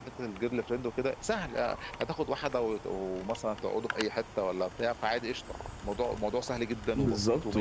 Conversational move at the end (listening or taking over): taking over